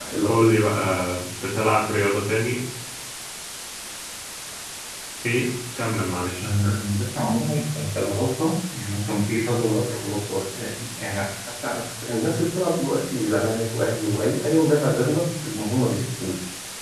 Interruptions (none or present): none